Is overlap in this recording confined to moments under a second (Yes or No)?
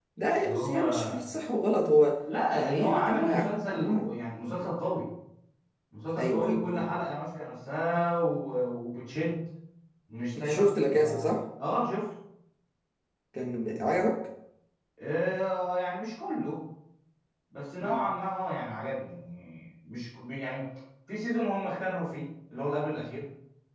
No